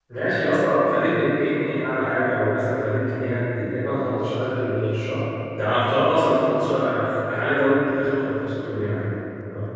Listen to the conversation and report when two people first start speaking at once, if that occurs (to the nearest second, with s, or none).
none